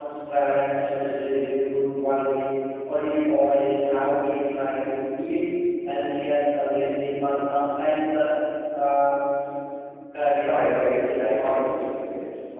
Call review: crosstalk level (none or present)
present